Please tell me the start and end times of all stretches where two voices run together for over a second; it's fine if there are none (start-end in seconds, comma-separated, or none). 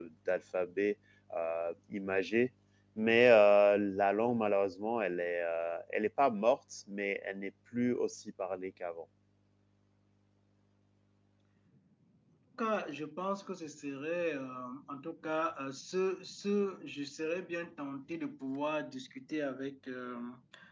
none